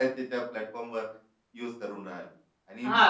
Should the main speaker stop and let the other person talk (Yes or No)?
Yes